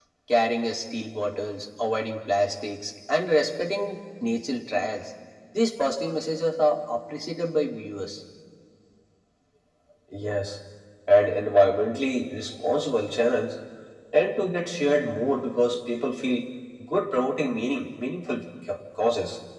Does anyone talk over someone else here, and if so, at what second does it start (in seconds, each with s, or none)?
none